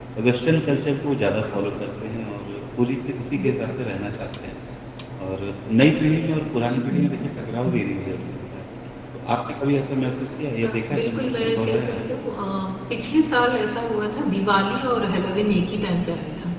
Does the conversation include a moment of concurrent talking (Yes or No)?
Yes